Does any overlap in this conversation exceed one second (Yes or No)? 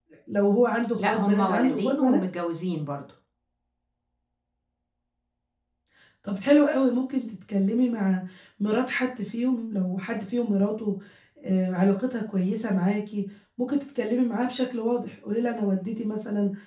Yes